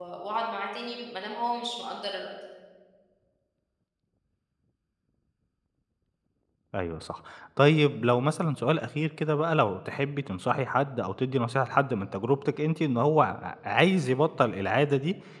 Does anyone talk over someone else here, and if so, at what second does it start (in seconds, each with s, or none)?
none